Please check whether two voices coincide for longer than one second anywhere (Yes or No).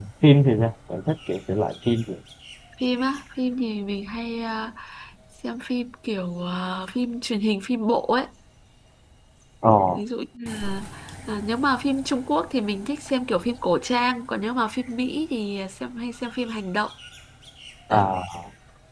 No